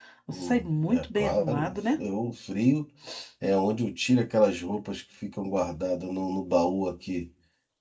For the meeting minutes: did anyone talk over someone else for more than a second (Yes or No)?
Yes